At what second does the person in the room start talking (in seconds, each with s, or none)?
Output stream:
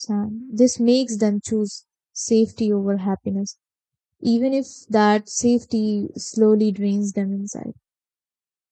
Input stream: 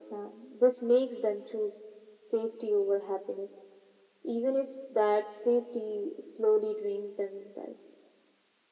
none